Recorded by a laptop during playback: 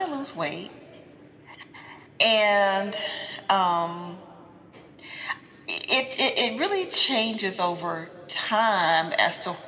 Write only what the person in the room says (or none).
none